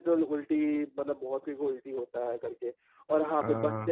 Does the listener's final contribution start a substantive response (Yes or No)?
No